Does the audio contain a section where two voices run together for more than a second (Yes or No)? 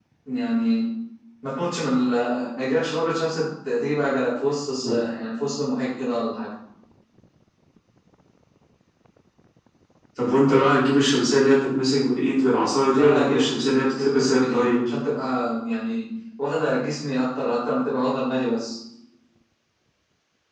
Yes